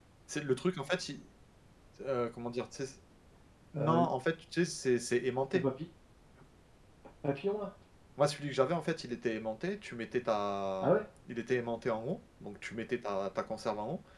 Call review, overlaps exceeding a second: none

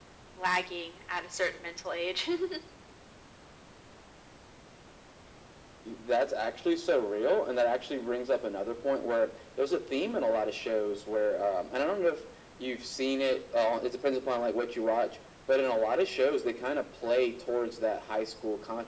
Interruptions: none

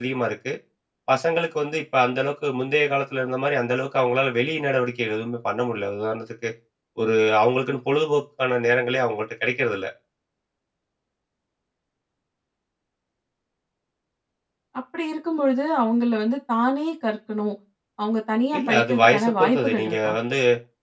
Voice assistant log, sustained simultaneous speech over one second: present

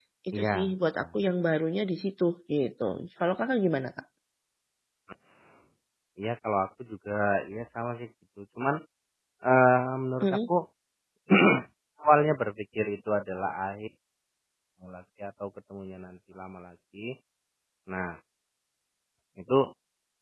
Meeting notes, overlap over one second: none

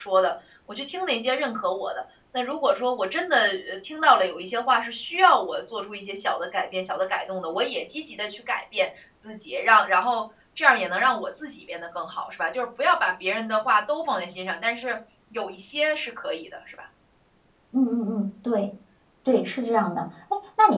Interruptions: none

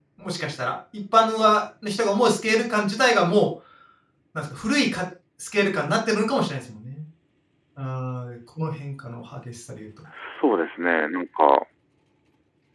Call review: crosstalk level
none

